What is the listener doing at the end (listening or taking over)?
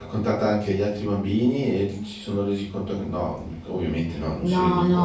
taking over